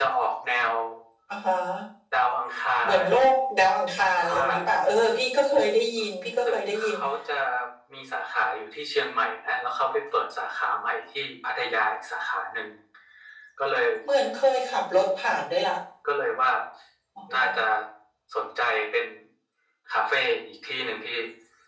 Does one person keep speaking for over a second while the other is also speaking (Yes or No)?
No